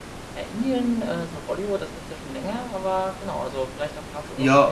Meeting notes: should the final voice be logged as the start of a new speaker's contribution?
Yes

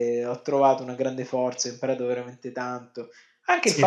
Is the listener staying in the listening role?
Yes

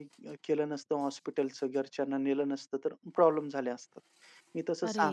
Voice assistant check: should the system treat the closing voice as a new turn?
No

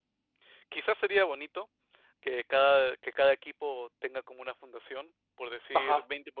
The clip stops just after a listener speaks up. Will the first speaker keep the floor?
Yes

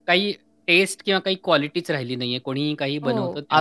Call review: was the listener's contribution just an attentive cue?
No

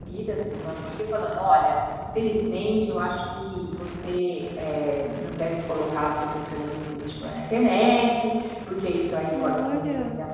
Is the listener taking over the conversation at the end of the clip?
No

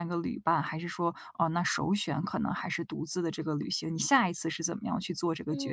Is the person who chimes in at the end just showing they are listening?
No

